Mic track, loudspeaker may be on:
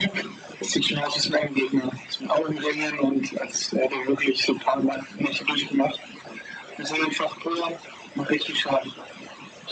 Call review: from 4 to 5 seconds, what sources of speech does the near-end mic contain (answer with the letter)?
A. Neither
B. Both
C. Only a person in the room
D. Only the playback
D